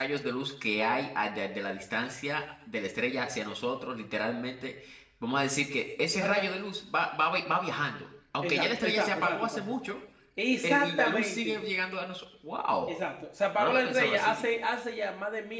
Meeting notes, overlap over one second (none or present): present